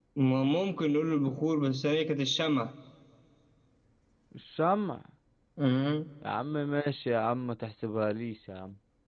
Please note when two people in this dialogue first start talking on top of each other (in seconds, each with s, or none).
none